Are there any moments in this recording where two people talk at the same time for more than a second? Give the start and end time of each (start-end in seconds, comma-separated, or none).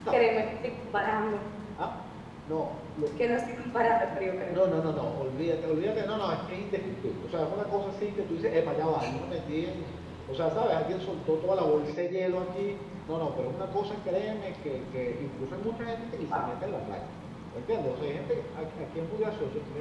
none